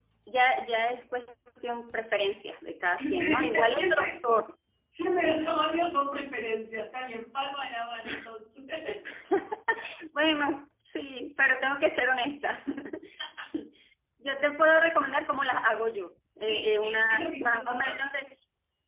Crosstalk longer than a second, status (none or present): present